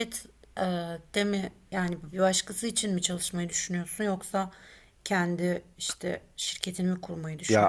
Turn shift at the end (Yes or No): Yes